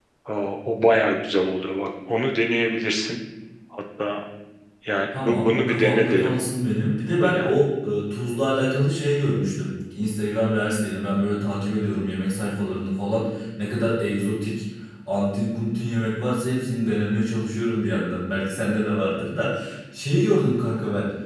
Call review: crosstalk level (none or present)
present